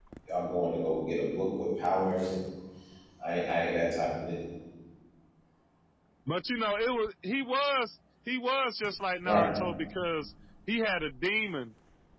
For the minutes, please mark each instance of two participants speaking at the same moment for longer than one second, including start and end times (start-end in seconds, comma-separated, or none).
none